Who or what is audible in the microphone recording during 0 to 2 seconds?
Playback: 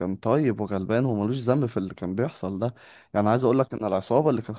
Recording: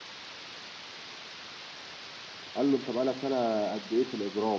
neither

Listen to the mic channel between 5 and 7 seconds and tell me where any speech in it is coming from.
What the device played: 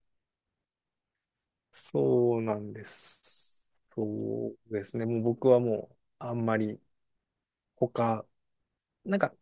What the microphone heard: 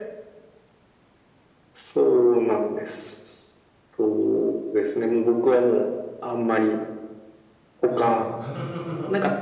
echo only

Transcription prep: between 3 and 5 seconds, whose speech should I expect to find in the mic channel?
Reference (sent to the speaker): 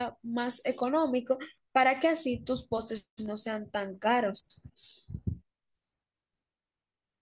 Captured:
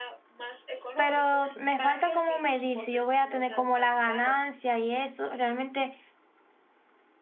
both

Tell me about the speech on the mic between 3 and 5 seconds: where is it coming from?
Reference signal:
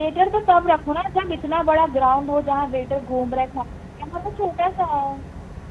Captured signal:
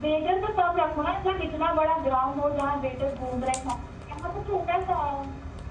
echo only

